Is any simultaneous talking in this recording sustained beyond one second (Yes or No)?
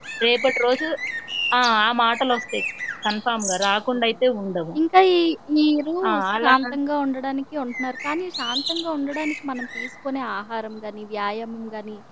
No